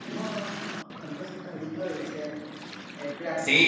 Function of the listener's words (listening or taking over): taking over